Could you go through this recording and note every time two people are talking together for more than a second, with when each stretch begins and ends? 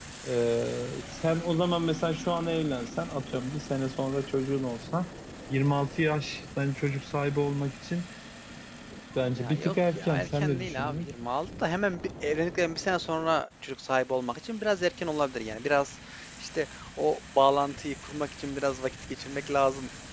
9.3-11.1

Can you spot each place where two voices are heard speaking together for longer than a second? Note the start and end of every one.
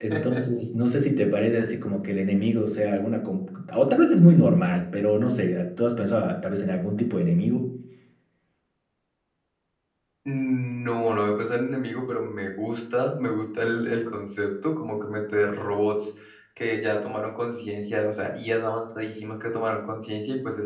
none

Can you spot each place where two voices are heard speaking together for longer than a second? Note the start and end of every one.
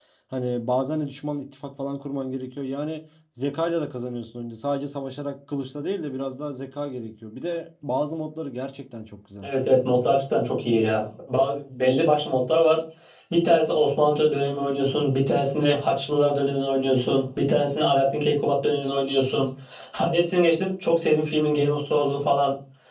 none

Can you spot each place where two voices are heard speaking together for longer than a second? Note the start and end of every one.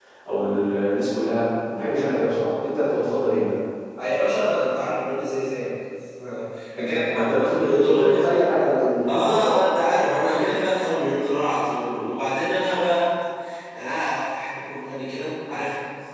6.8-8.3

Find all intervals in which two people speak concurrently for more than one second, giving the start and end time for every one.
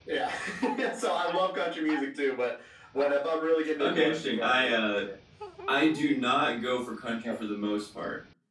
3.8-5.0

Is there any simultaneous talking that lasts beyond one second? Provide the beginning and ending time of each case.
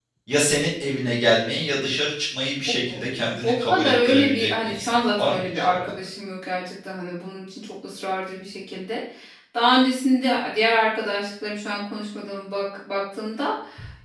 3.4-5.9

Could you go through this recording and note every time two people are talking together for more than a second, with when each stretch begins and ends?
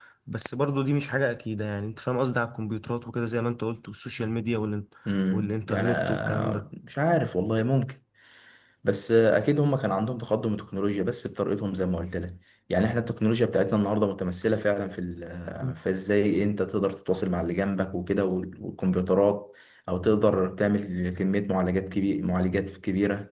5.3-6.6

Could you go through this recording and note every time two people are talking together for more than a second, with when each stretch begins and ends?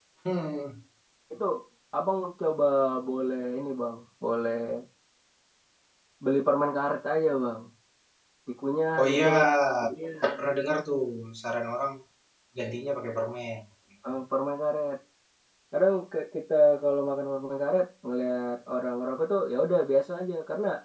none

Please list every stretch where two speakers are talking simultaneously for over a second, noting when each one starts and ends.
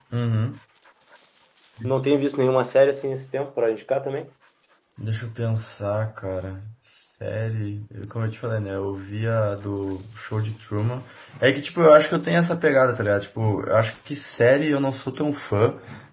none

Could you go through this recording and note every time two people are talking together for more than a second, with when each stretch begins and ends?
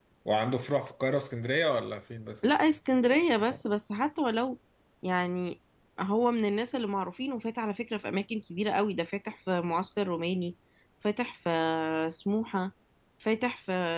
none

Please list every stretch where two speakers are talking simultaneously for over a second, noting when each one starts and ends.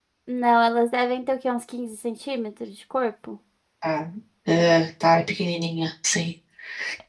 none

